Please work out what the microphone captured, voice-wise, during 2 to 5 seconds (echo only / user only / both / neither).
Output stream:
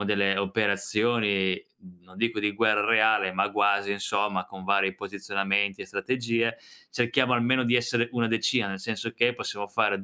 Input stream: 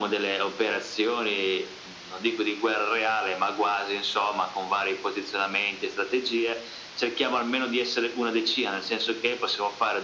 echo only